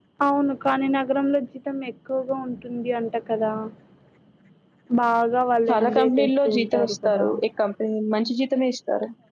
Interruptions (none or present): present